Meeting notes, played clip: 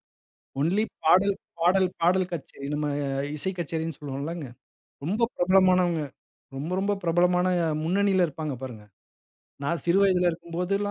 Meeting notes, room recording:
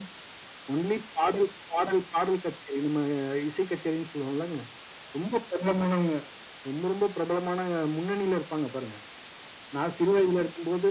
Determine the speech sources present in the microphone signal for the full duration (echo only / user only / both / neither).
echo only